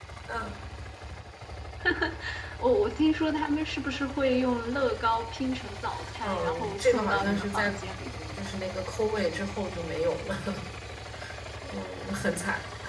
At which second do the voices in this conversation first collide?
6.0 s

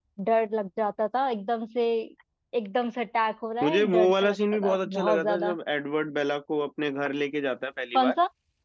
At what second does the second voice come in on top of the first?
3.6 s

